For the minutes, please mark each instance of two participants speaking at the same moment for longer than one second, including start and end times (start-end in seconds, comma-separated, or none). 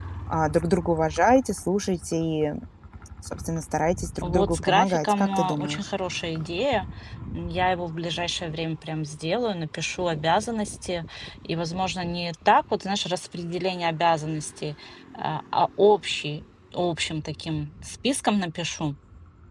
4.2-5.9